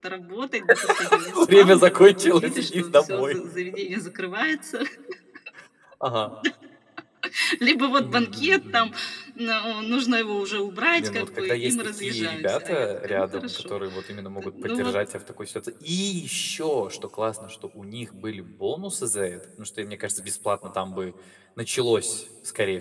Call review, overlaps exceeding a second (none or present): present